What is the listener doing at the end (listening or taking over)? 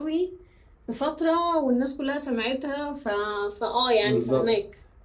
taking over